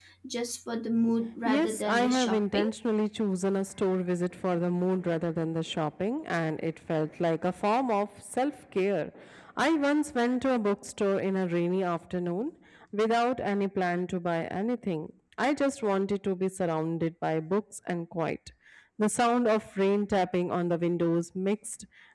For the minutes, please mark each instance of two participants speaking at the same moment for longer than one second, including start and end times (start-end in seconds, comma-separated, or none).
1.4-2.7